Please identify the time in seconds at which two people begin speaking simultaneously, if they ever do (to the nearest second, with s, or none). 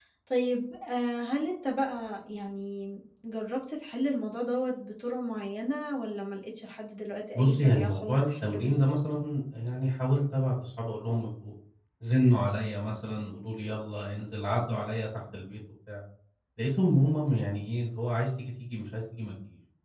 7 s